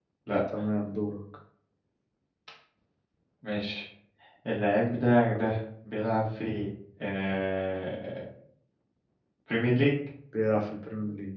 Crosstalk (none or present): none